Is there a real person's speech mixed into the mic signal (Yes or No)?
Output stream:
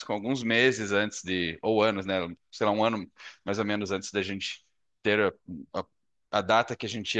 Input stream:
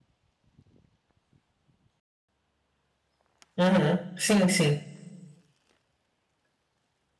Yes